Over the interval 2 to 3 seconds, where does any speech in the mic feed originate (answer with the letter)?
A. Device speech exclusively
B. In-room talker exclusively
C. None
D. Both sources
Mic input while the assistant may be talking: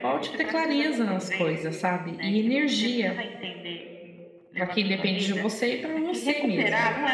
D